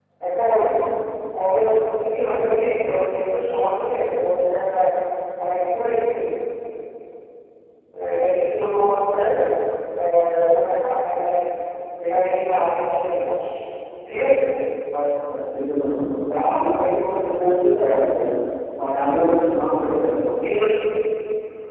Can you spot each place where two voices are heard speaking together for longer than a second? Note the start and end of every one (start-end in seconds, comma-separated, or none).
none